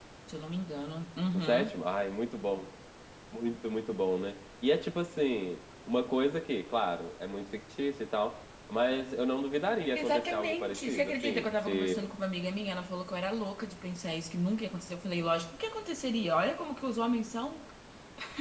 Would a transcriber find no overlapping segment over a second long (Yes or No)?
No